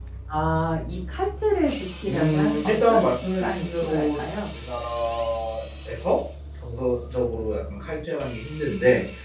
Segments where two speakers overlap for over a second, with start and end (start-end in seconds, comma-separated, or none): 2.1-4.5